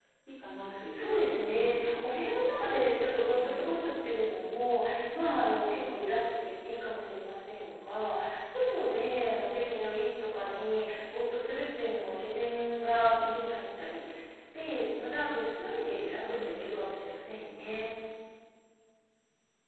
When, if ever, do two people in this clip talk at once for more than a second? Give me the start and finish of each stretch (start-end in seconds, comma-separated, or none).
0.9-2.2